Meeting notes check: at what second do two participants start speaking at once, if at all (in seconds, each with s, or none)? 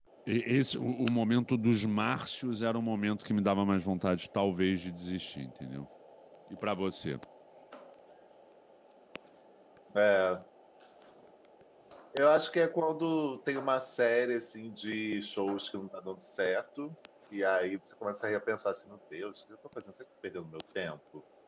none